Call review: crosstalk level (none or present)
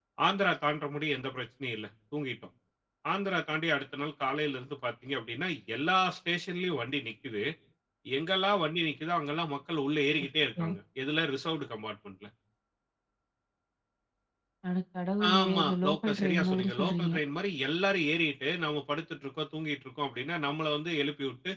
present